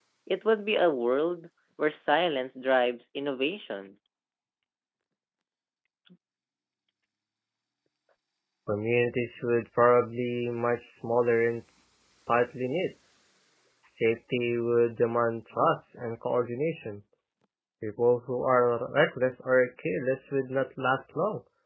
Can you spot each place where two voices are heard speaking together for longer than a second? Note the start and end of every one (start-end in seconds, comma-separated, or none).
none